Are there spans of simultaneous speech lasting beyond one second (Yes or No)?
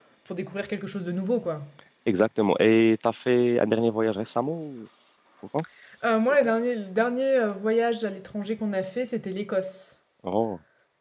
No